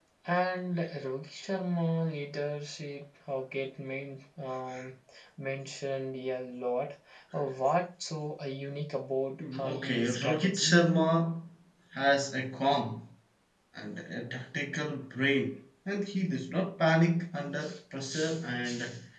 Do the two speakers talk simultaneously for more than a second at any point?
Yes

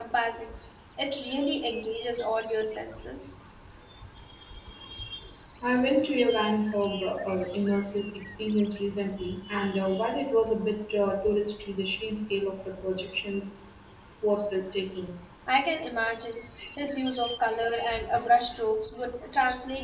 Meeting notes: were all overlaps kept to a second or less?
Yes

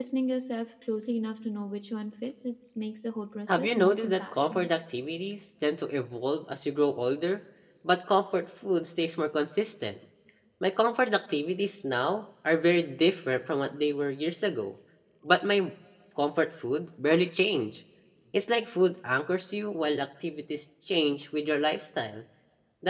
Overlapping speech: Yes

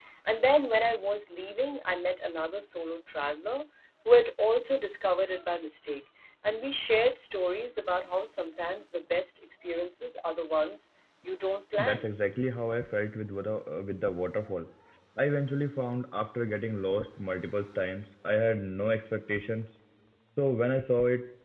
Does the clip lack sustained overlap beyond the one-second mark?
Yes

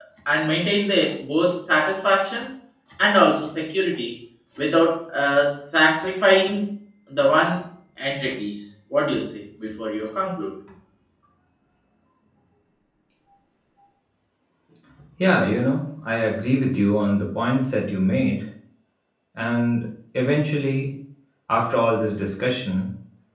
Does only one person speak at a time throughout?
Yes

